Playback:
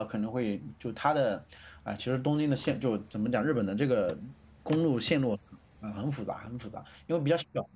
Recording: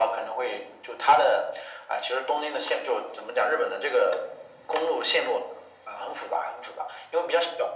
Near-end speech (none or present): none